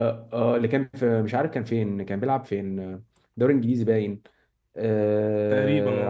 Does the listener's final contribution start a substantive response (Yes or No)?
No